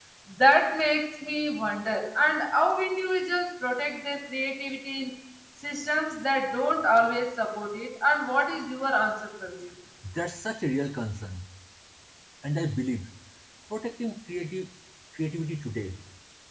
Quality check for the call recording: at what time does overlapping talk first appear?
none

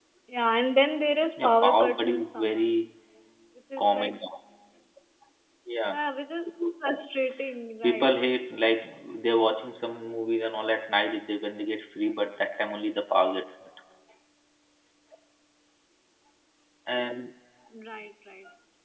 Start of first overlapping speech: 1.4 s

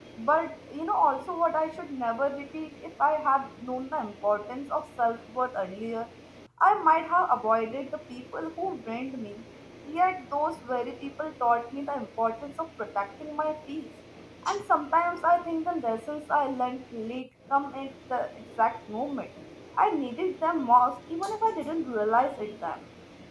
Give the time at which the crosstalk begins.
none

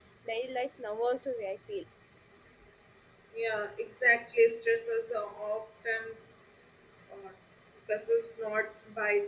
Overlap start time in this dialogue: none

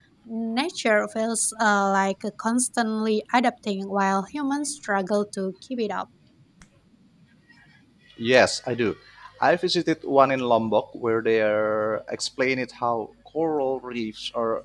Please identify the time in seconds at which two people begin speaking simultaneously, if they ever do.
none

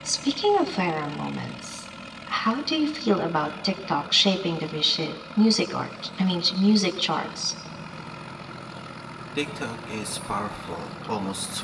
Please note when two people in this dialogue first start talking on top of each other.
none

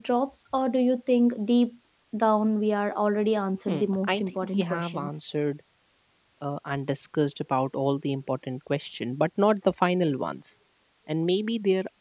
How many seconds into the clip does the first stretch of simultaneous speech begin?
3.7 s

